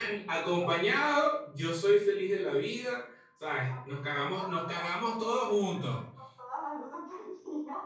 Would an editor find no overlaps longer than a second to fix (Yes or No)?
No